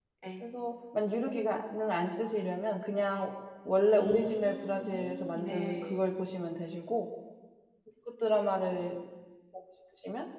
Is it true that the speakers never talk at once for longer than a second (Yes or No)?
No